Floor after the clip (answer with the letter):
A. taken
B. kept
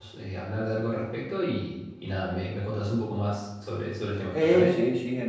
A